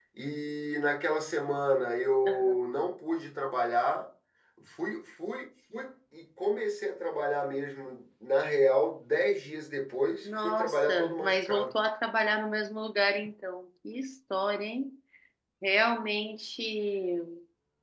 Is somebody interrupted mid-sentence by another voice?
Yes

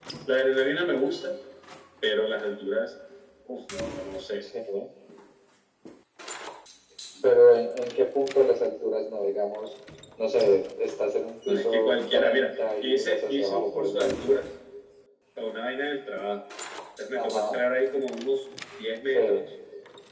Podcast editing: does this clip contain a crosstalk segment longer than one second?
Yes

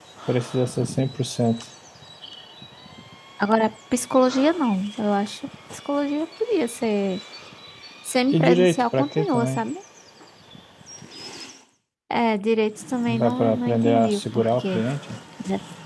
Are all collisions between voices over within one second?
No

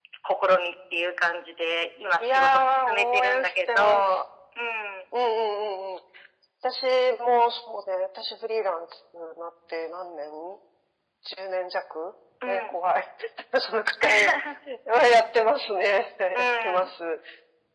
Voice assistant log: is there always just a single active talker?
No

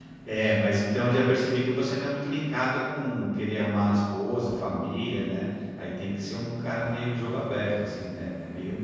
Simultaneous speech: No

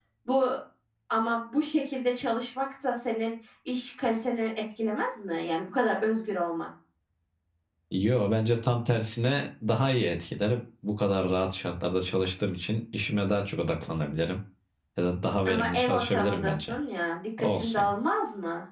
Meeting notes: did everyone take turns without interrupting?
No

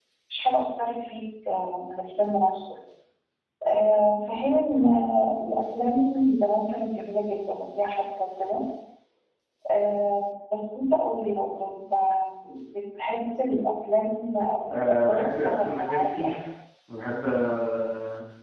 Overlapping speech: Yes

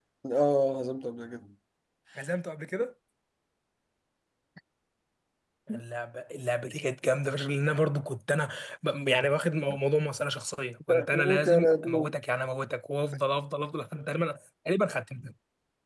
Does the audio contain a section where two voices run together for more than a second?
Yes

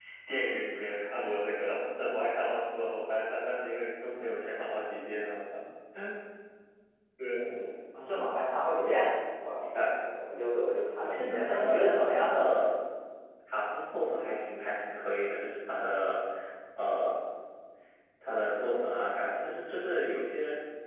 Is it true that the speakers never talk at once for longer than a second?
No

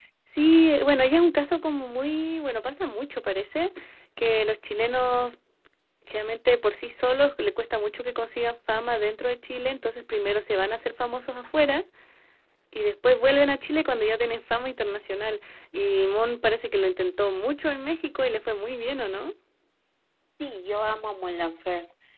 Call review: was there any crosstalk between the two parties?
No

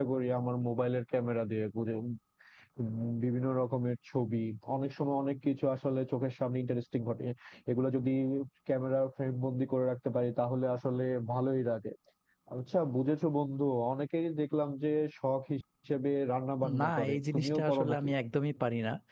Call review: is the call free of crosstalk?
No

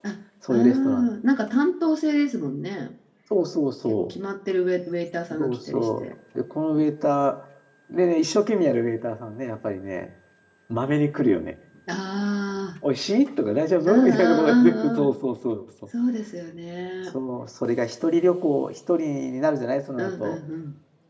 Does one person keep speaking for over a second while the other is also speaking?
Yes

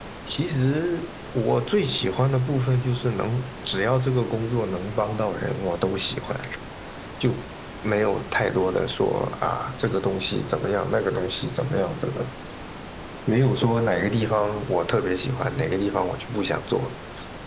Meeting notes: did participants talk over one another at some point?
No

